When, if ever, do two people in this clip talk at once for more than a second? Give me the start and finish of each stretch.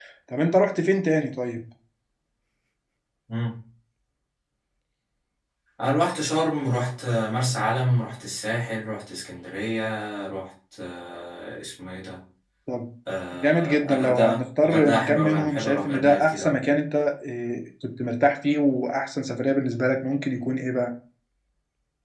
13.3-16.5

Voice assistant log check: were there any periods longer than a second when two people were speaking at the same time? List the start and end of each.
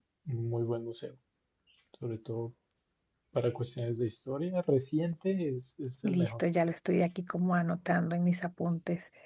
none

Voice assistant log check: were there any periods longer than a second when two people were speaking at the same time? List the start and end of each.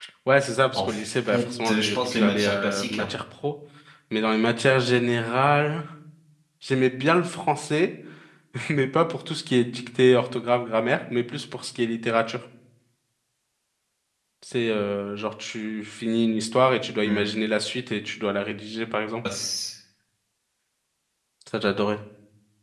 0.8-3.1

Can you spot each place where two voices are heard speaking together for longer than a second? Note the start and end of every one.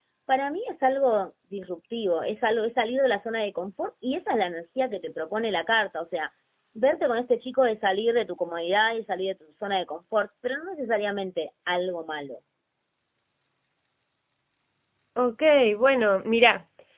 none

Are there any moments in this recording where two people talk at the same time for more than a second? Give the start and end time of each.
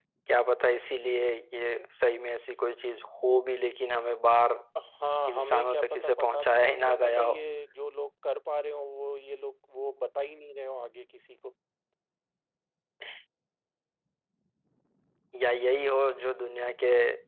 5.3-7.3

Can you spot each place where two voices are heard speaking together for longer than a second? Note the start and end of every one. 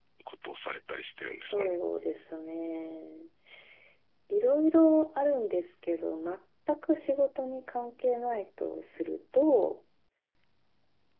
none

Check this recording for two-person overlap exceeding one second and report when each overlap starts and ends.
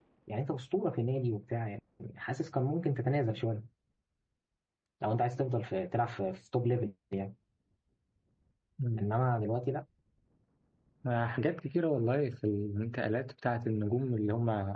none

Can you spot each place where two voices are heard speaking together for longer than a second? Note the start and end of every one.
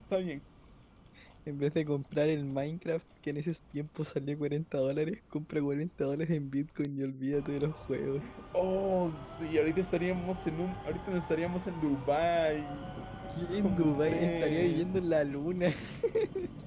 13.5-14.9

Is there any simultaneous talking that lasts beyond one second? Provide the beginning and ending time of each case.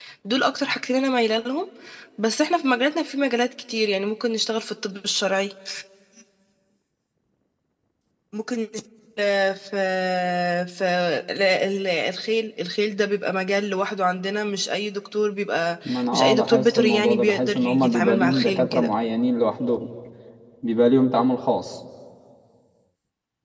15.8-18.9

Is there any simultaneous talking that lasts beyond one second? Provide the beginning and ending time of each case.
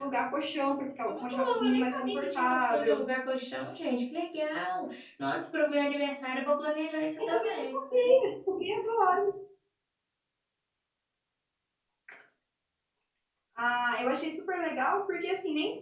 1.1-3.0

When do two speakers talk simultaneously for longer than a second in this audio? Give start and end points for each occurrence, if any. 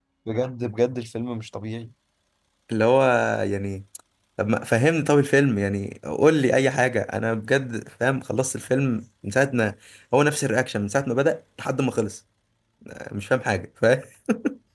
none

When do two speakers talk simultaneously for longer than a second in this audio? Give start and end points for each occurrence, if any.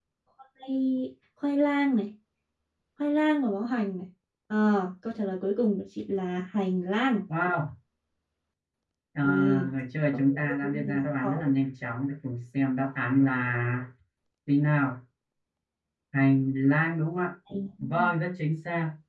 10.1-11.5

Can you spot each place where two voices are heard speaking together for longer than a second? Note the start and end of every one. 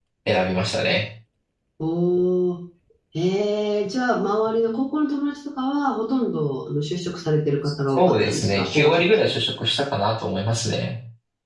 8.0-9.4

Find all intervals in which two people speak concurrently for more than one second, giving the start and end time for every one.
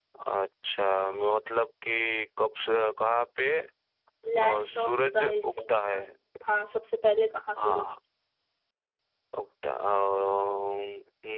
4.4-6.0

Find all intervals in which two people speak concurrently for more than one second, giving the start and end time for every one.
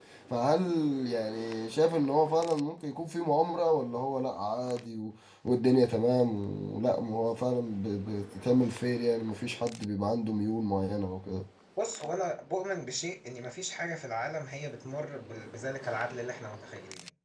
none

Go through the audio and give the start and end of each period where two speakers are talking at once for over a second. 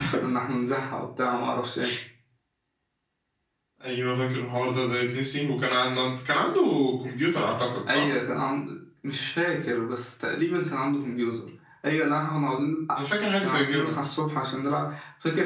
none

